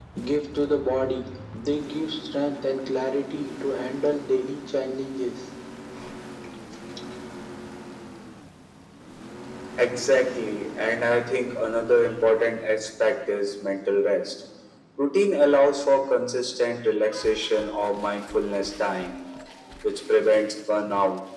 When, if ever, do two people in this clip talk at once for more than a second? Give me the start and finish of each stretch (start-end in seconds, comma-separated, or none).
none